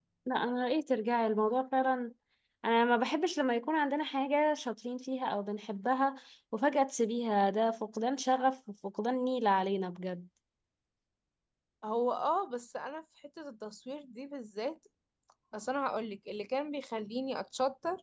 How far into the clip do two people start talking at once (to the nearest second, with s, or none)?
none